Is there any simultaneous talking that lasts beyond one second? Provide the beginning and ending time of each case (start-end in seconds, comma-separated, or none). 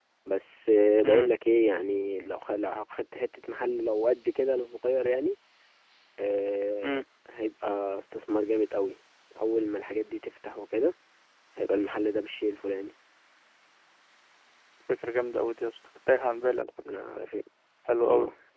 none